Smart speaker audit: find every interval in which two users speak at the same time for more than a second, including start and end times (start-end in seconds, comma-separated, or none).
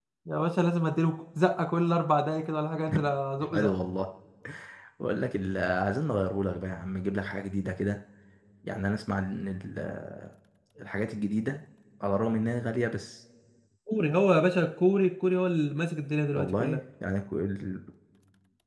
none